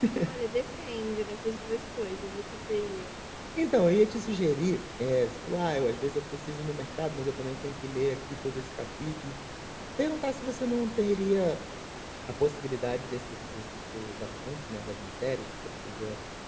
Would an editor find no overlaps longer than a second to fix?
Yes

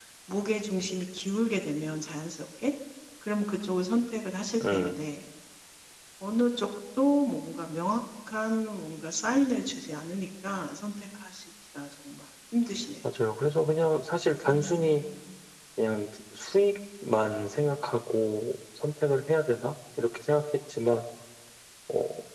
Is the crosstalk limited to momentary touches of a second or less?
Yes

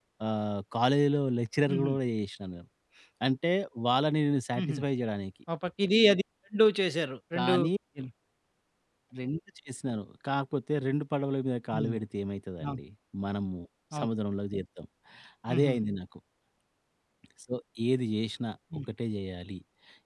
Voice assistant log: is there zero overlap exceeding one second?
Yes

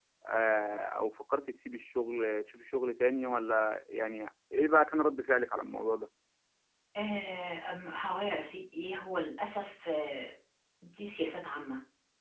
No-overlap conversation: Yes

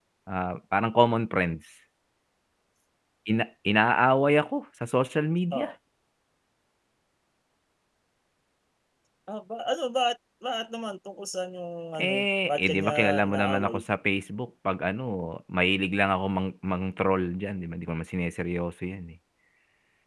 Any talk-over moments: Yes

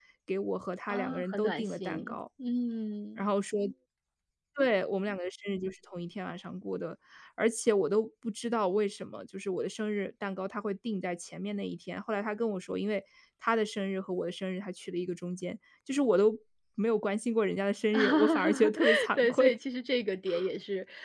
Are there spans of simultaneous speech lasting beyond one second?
Yes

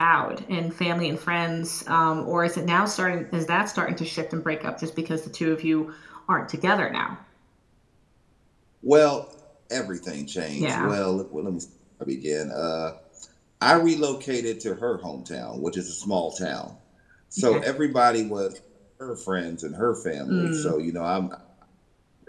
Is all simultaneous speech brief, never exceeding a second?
Yes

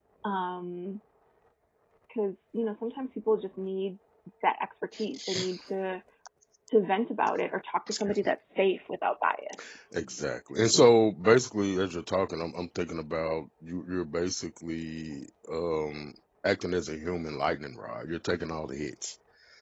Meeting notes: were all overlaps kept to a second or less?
Yes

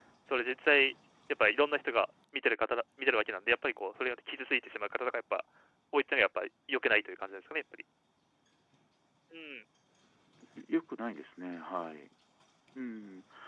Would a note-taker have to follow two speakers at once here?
No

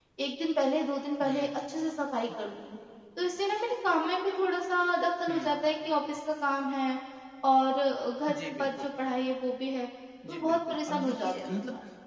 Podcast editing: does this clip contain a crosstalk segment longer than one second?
Yes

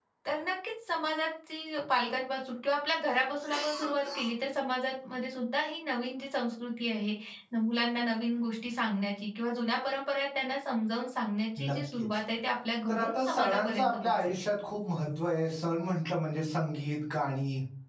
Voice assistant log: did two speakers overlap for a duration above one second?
Yes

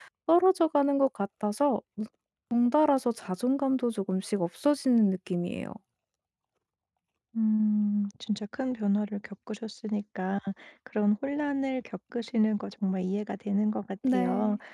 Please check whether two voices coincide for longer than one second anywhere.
No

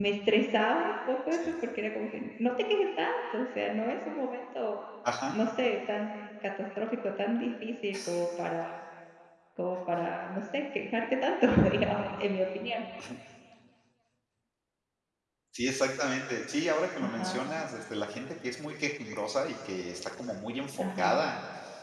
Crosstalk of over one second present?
No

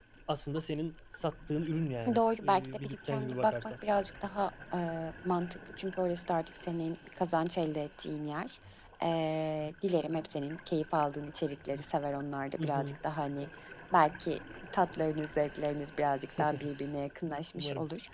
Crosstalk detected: Yes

